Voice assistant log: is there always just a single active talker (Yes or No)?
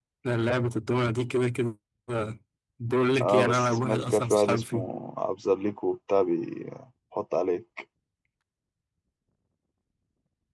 No